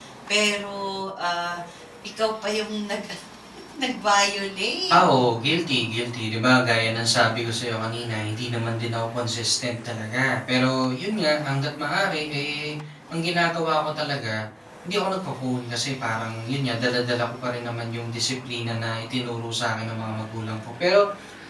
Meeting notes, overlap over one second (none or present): none